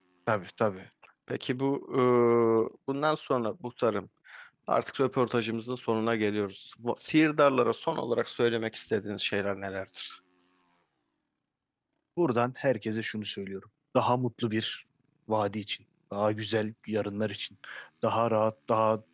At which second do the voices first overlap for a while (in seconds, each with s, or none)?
none